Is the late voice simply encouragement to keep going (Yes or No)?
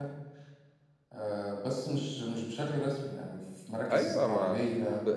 No